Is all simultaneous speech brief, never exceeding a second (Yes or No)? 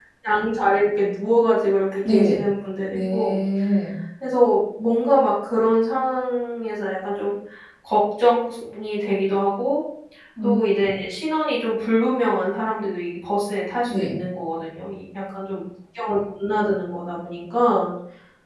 Yes